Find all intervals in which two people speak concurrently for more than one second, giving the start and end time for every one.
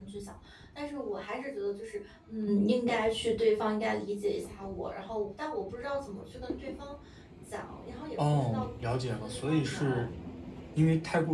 8.2-10.0

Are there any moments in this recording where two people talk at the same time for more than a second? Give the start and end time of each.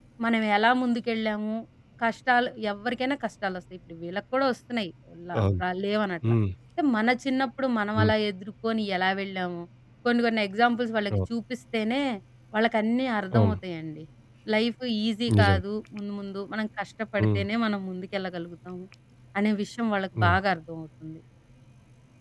none

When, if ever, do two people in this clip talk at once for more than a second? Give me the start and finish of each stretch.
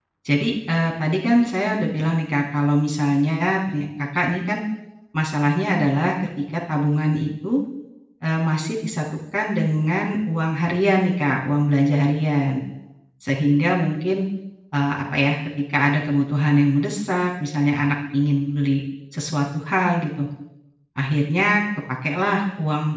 none

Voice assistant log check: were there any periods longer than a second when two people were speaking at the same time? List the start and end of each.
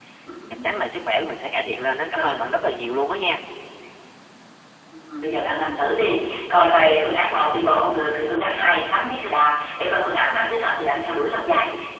none

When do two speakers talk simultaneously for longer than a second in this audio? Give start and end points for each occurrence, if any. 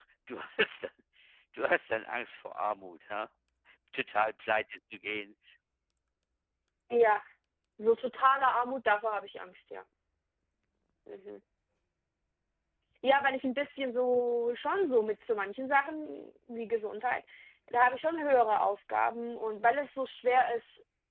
none

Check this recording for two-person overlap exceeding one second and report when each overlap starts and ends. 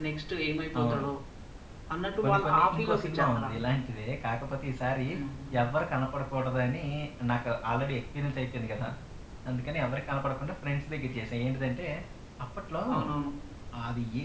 2.2-3.5

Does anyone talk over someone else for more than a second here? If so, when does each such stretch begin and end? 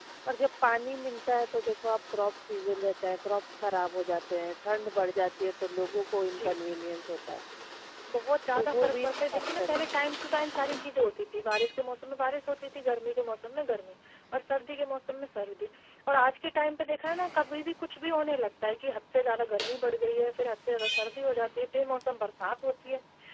8.6-9.8

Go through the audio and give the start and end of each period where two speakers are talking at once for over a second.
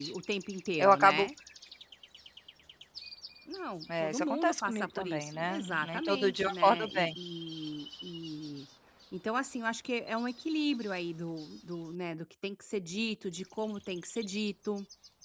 4.0-7.1

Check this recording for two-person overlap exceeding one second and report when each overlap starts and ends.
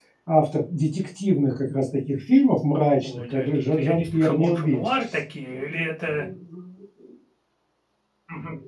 3.0-4.8

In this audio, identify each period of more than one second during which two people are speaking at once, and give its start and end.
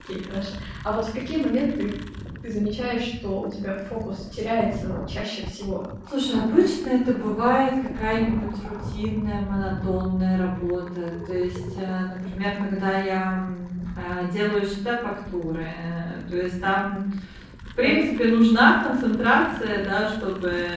none

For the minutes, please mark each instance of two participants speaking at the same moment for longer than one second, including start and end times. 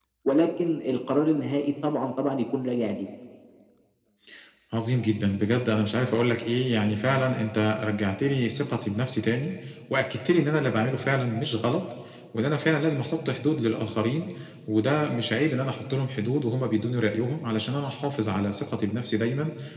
none

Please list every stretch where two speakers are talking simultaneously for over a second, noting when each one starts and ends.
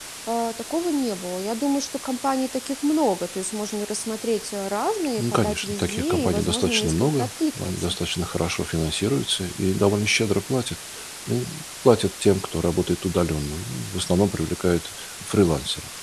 5.2-8.0

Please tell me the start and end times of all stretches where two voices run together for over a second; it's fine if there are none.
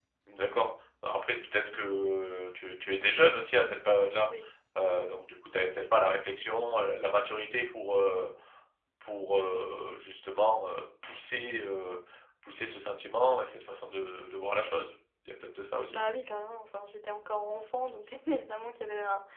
none

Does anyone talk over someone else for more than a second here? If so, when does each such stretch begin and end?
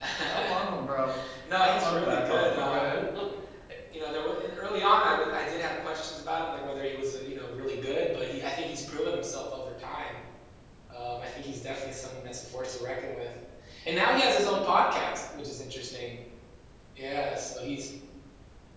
1.6-3.0

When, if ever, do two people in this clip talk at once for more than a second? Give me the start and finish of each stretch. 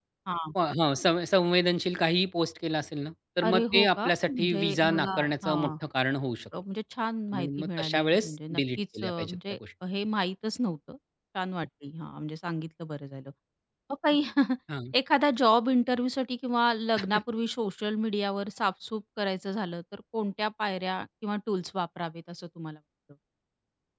3.4-5.7, 7.3-9.6

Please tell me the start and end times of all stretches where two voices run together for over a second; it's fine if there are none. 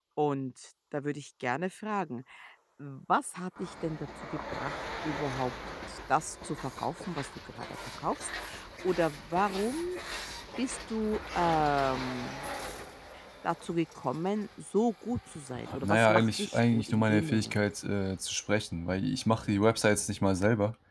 15.8-17.6

